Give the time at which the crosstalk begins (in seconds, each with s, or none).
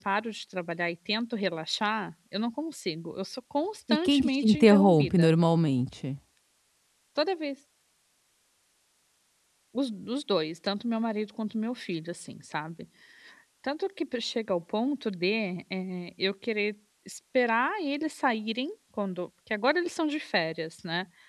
3.9 s